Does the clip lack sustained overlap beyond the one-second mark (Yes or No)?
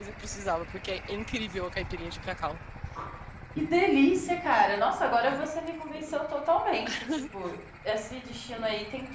Yes